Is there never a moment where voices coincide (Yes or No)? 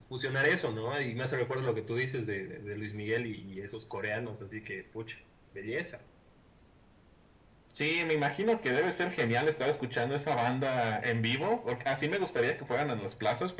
Yes